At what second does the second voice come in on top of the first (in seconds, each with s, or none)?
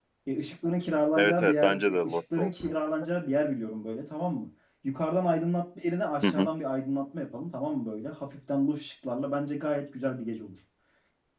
1.1 s